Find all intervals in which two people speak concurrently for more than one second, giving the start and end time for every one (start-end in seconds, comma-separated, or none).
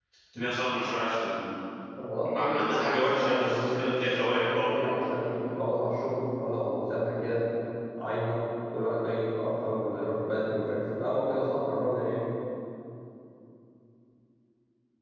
2.3-4.7